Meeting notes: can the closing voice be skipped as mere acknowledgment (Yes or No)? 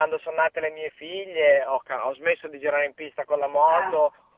Yes